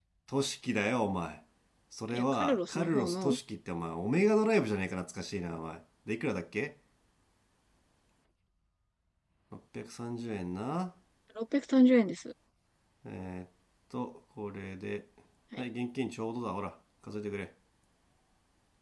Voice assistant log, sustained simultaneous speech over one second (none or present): present